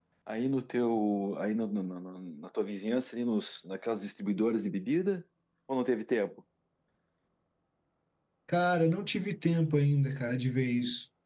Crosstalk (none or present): none